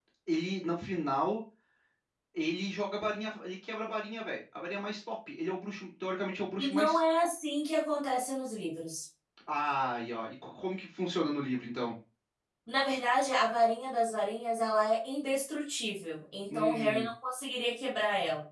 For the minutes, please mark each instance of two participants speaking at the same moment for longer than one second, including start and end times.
none

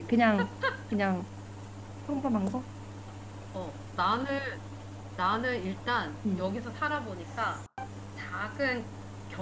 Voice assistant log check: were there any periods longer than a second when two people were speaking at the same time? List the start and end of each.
none

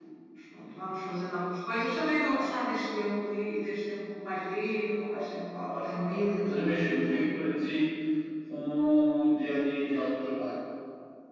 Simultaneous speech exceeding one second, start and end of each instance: 5.7-7.4

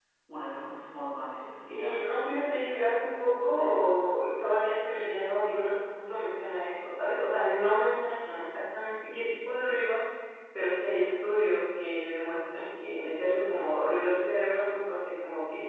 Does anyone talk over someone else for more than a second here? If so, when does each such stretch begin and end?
1.7-2.9

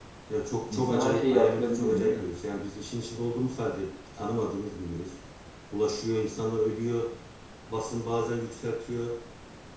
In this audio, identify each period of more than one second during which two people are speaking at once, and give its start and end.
0.7-2.3

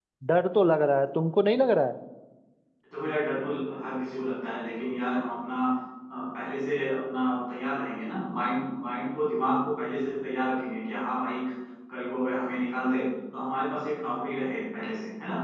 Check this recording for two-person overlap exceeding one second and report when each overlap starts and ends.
none

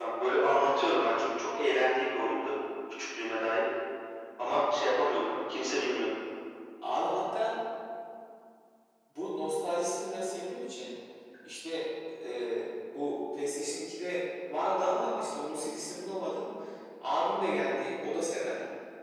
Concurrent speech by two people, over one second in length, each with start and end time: none

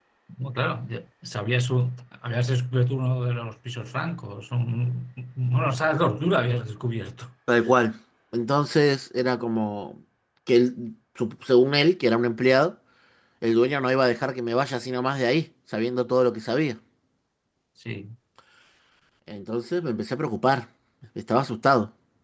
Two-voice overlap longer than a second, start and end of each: none

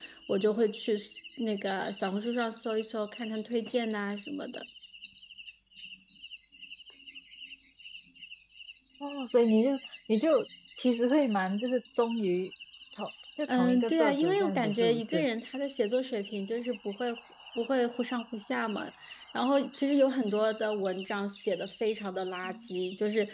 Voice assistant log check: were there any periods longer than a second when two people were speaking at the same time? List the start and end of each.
13.5-15.2

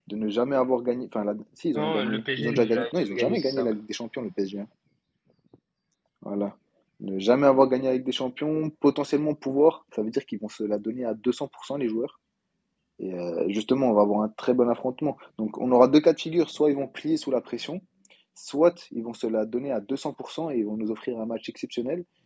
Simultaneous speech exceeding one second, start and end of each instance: 1.7-3.7

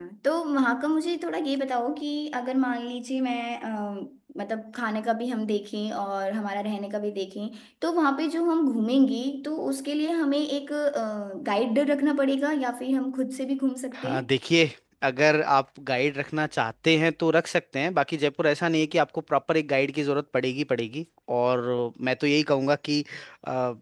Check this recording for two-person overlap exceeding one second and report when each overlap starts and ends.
none

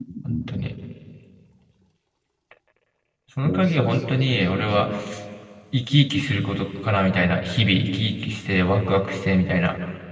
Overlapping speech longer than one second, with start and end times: 3.4-4.9

